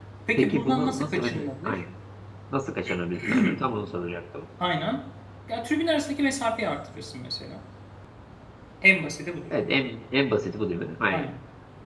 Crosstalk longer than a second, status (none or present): present